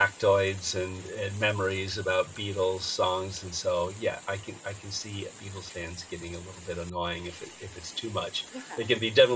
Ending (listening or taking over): listening